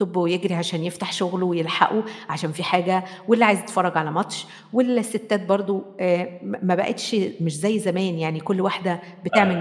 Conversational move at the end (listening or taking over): listening